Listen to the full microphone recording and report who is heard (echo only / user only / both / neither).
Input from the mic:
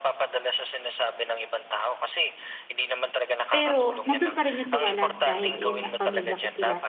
both